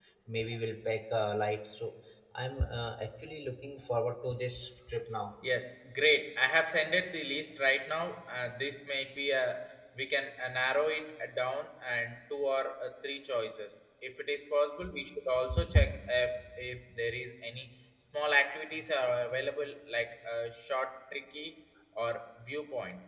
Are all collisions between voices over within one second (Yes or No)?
Yes